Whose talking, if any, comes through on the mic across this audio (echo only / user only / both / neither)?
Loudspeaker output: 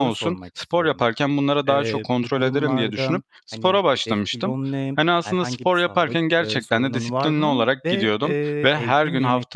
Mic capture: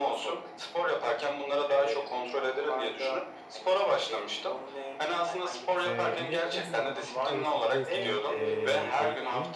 both